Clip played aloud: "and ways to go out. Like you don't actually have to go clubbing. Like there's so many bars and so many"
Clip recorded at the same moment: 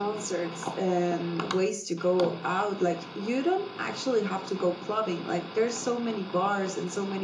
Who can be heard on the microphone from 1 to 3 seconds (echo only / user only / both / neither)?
echo only